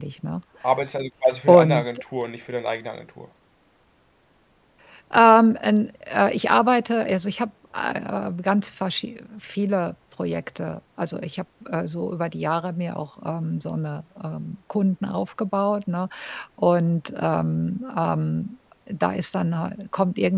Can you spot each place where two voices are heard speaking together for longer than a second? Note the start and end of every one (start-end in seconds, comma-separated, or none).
none